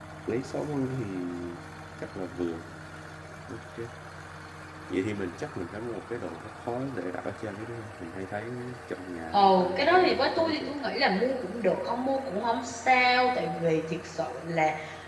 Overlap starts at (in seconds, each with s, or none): 9.3 s